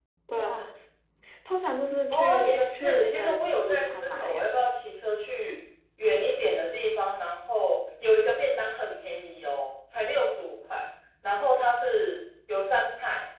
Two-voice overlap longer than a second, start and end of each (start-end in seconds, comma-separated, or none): 2.1-4.5